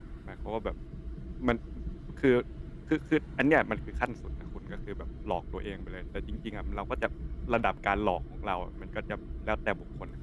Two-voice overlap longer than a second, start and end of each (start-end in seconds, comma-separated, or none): none